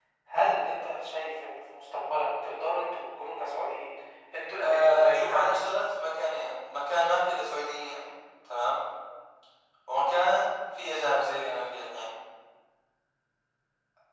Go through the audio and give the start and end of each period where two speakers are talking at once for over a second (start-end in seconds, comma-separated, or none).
4.6-5.8